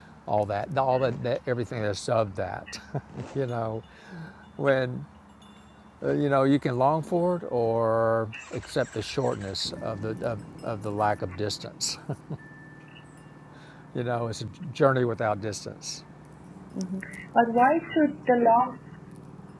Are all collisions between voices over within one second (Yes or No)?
Yes